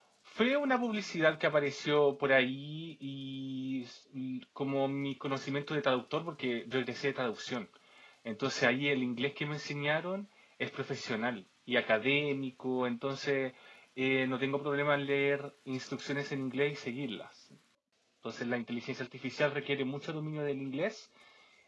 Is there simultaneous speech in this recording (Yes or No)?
No